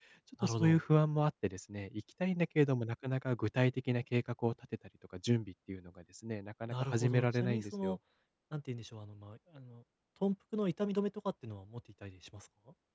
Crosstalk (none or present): present